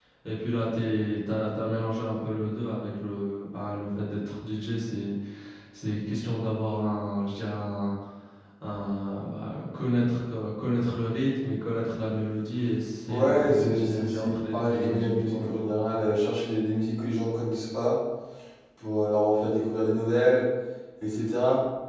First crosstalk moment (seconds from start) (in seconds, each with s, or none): 13.1 s